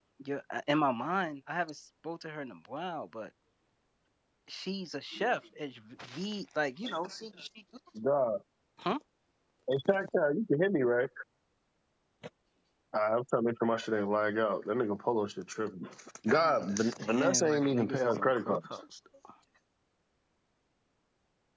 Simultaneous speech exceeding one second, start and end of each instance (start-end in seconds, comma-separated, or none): 16.3-18.7